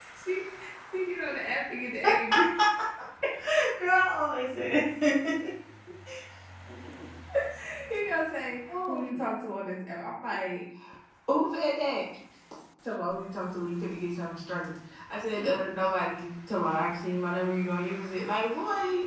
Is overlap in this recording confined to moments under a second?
Yes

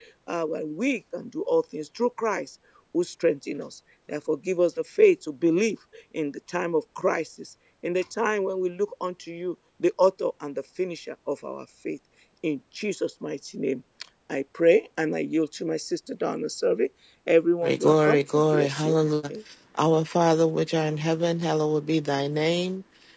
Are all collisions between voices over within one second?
No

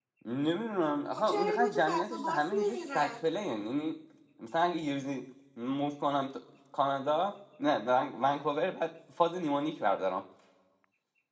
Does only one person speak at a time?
No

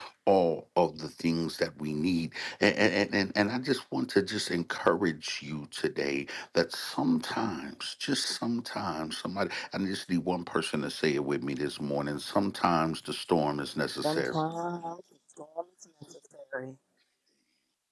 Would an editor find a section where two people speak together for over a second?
No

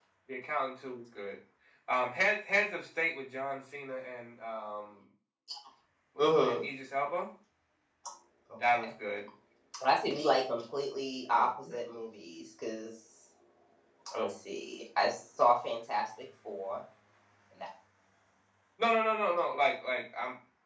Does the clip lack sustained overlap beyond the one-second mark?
Yes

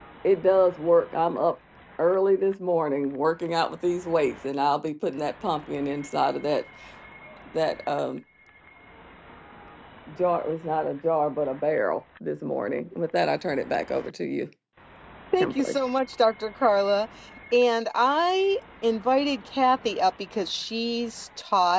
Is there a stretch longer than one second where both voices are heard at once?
No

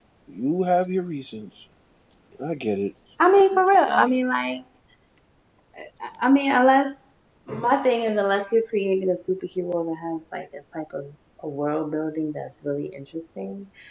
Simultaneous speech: No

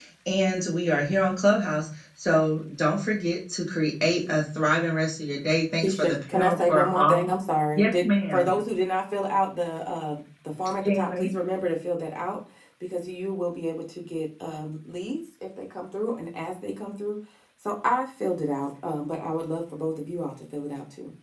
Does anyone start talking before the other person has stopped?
Yes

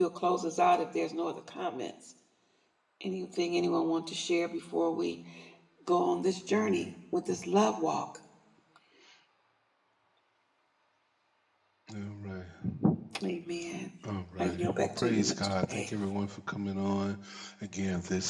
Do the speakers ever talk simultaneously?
Yes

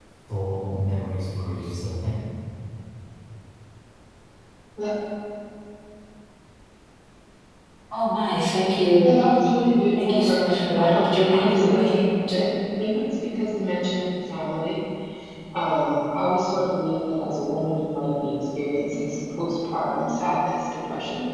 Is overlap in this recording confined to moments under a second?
No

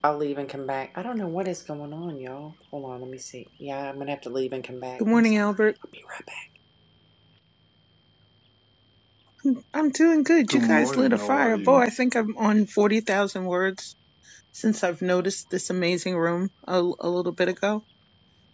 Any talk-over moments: Yes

